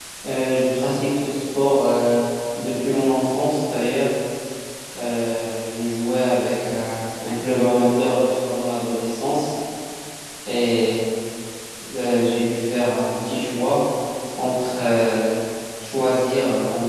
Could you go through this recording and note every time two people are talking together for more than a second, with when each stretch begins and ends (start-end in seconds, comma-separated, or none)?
none